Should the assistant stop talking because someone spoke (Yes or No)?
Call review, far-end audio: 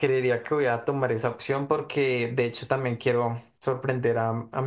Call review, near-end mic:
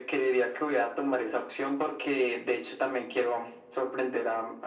No